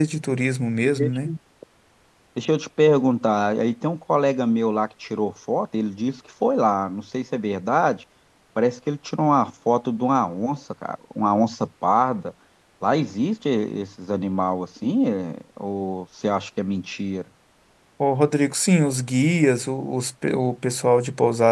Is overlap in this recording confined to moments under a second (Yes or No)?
Yes